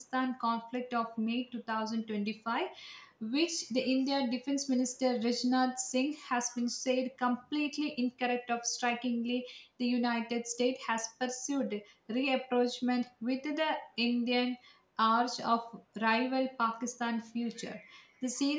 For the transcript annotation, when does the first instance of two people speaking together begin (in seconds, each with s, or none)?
none